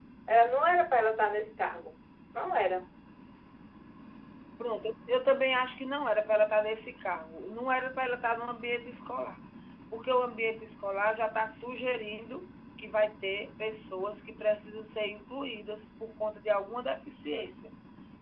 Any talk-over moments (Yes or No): No